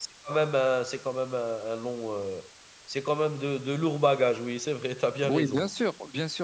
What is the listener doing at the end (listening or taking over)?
taking over